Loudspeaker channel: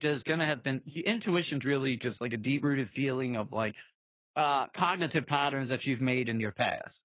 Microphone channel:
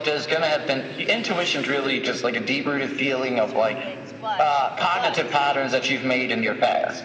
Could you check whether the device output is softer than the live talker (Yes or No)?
No